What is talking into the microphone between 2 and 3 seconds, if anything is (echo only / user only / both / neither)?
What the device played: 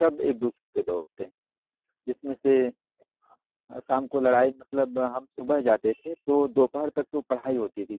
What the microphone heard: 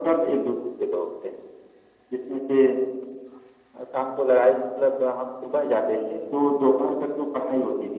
echo only